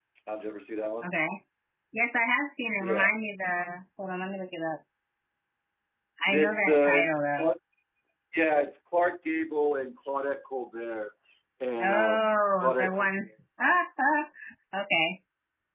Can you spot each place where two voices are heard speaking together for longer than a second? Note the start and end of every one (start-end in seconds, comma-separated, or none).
6.3-7.5, 11.8-13.2